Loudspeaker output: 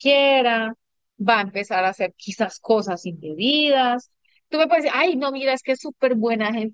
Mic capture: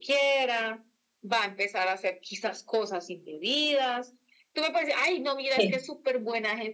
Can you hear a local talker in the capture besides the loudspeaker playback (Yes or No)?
Yes